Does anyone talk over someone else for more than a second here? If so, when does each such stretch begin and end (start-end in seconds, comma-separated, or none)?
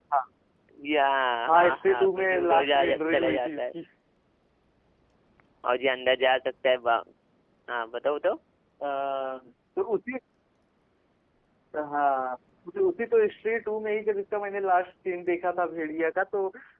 1.5-3.6